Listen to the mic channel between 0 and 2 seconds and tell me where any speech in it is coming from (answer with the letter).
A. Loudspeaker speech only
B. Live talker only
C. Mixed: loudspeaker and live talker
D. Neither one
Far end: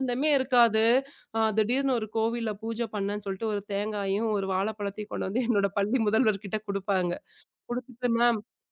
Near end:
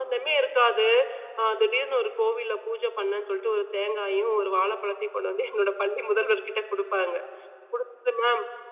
A